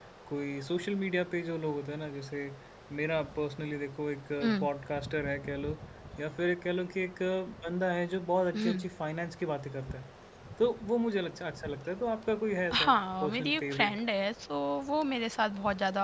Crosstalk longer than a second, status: present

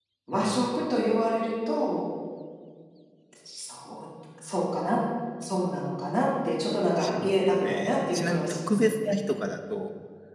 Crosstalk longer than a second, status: present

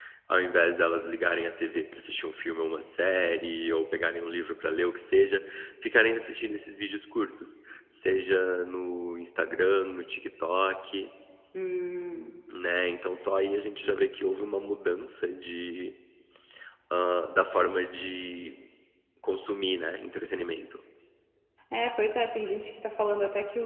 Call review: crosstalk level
none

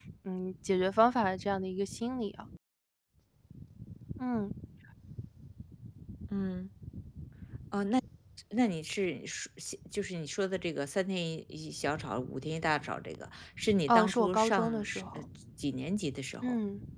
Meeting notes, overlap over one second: present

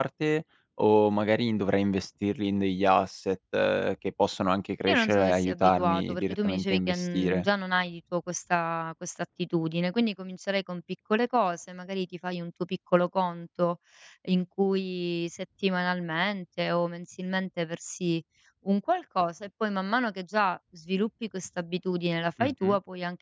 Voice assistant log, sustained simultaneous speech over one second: present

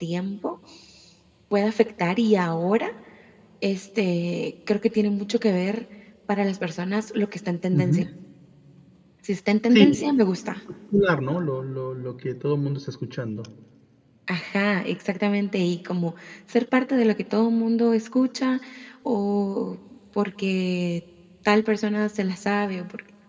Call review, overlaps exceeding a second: none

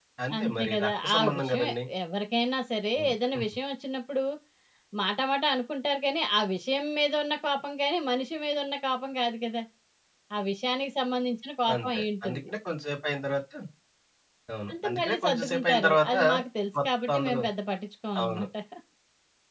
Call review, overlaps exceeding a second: present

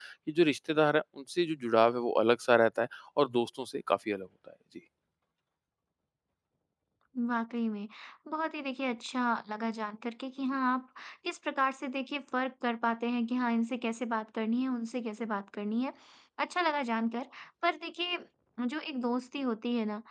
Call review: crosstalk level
none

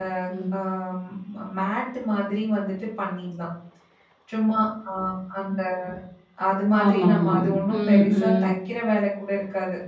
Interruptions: present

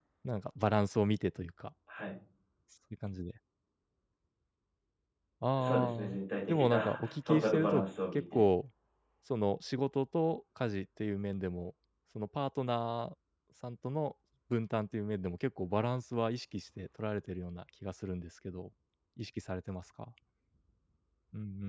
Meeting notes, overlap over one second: present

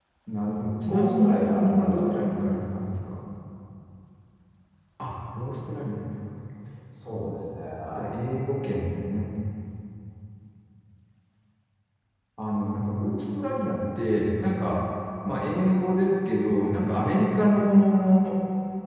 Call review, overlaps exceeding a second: present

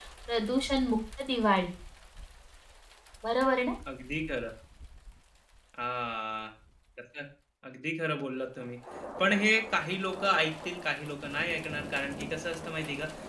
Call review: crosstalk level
none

